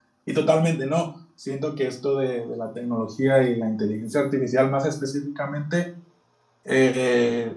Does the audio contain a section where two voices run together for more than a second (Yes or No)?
No